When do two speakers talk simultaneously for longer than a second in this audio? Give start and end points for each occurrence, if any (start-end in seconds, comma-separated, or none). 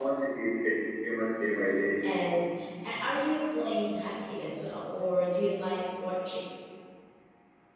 none